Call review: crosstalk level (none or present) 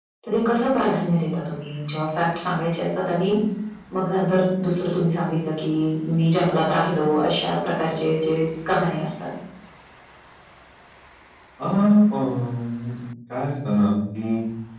none